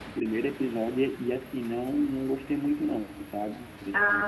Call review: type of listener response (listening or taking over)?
taking over